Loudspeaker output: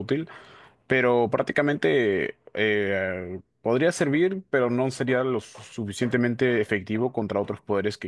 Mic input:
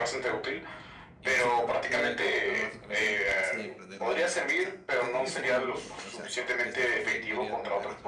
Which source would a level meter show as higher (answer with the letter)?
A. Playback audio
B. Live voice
A